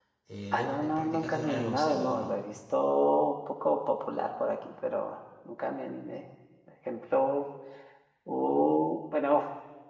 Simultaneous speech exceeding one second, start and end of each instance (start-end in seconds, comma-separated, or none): 0.5-2.3